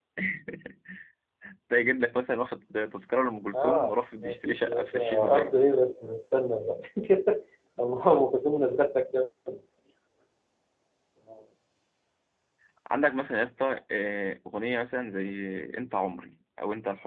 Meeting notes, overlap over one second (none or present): present